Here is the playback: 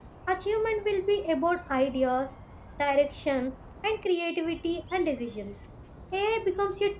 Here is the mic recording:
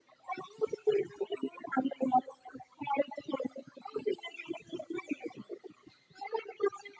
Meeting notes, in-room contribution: none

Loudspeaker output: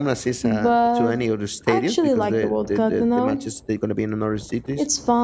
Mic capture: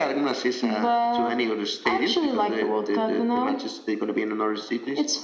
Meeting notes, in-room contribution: none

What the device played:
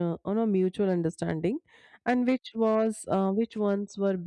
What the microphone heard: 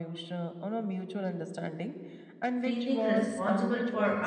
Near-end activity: present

